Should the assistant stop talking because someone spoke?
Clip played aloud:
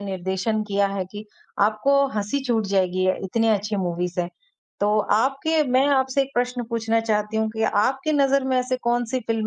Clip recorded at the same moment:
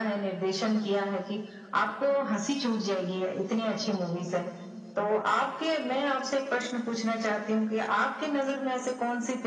No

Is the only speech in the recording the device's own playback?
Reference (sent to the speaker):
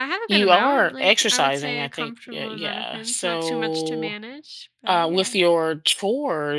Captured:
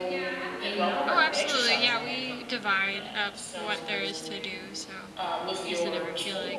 No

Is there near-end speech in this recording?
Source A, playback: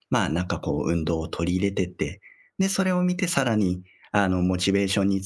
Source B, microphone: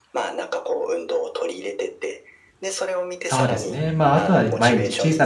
Yes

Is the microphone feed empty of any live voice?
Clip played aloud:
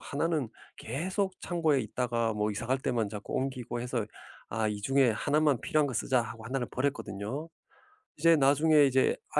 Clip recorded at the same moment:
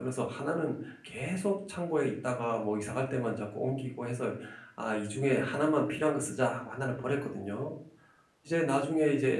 Yes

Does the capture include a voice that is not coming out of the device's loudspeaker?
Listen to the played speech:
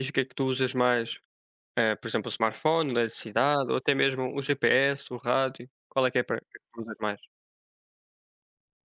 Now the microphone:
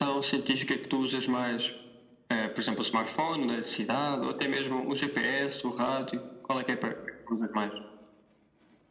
No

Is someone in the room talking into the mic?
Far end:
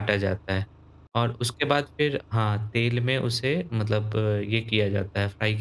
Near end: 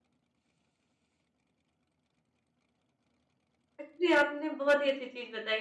Yes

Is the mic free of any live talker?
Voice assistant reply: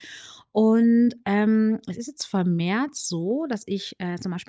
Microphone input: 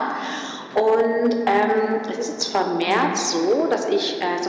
No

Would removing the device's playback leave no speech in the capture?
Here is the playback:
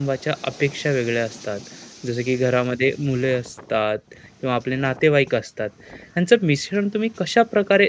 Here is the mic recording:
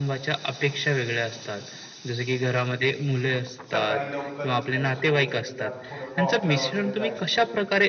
No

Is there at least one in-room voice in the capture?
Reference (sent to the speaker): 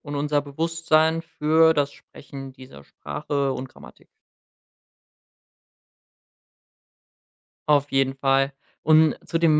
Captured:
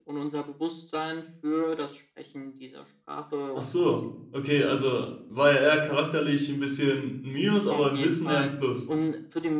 Yes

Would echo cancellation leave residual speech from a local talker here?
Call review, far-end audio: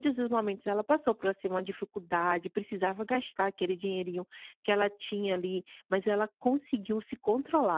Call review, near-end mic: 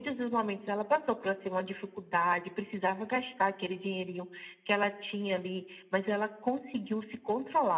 No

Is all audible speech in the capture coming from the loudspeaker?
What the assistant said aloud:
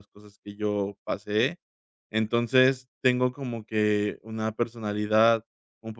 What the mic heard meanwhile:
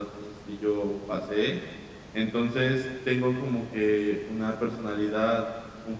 Yes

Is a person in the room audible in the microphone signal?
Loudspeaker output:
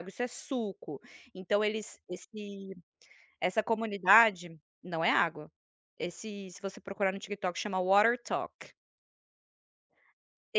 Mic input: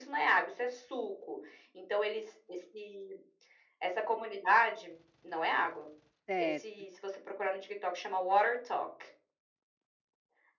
Yes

